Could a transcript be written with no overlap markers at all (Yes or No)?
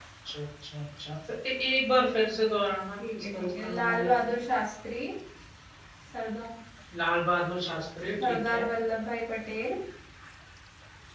No